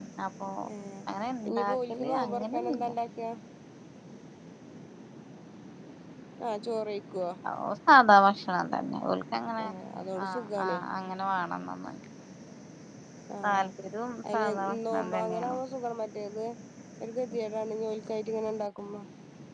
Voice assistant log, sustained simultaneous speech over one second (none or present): present